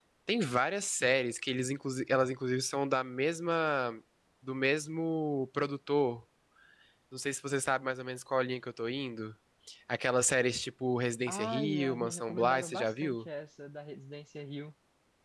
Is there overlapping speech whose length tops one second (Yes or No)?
Yes